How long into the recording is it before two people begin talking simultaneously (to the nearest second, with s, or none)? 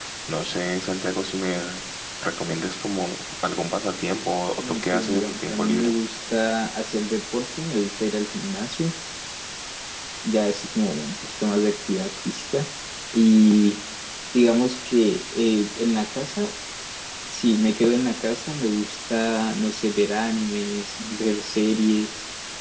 5 s